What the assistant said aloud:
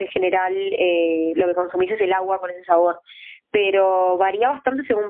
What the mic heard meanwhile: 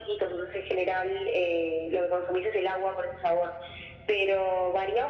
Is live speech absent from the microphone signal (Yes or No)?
Yes